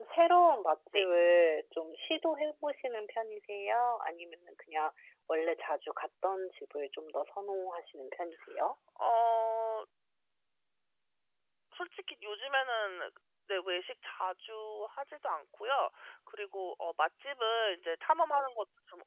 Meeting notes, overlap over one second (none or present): none